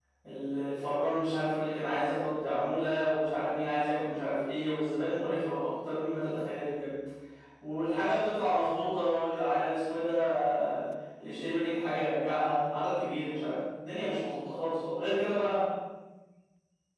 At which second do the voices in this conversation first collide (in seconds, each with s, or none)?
none